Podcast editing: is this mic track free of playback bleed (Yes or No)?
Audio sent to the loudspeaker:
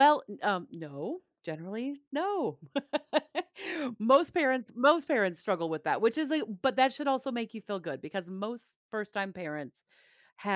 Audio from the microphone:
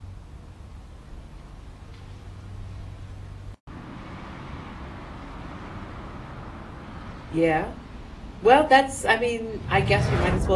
Yes